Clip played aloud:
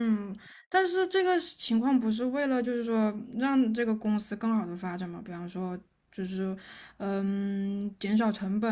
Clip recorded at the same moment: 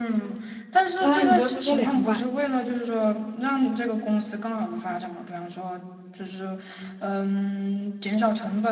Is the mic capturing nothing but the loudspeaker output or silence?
No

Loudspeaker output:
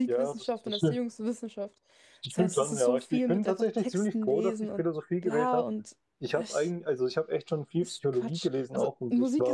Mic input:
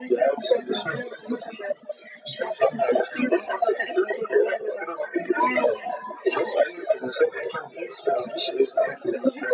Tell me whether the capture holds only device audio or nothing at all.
Yes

